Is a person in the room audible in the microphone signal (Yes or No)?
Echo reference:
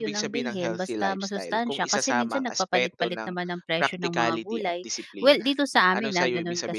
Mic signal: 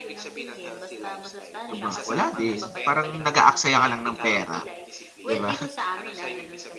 Yes